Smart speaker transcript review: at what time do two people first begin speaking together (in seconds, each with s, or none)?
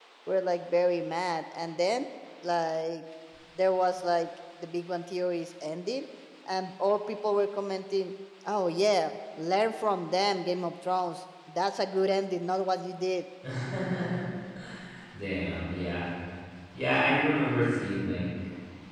none